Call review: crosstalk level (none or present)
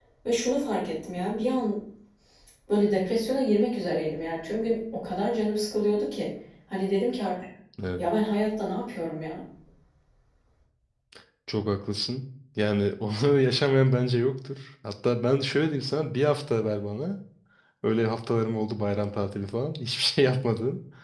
none